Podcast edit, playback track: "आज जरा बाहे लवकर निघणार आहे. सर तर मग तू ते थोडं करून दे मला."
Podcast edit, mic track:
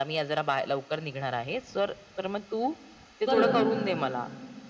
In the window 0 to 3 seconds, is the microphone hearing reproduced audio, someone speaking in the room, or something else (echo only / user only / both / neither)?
echo only